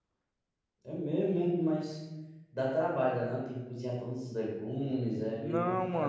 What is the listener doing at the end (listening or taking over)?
taking over